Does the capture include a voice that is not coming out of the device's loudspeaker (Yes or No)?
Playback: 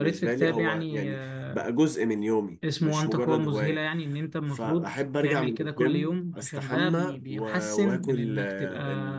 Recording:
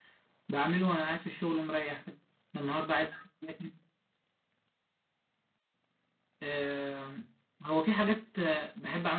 Yes